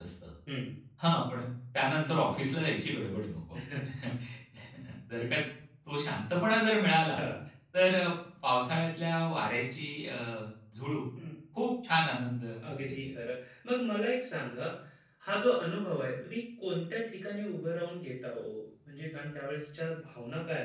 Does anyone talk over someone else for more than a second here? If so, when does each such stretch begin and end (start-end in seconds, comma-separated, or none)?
none